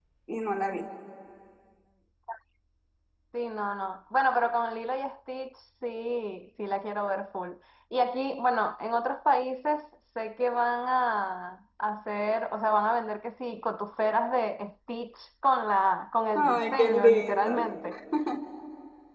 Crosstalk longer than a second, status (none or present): present